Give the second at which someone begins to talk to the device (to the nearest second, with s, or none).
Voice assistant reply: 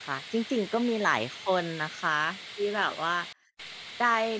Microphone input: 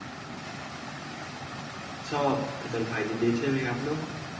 2 s